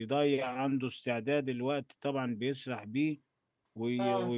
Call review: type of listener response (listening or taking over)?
listening